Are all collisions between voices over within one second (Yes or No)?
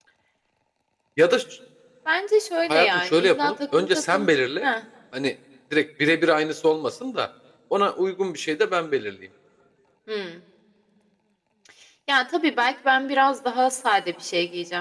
No